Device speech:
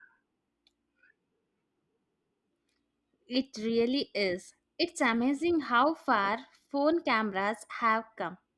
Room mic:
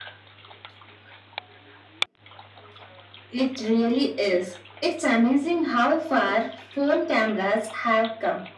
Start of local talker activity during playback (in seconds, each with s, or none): none